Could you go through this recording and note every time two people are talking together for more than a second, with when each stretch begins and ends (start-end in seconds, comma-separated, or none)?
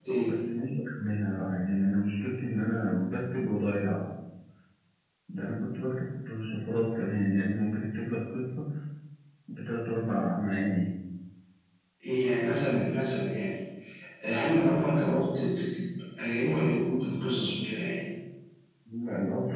none